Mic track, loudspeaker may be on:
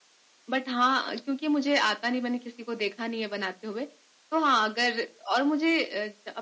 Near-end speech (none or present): none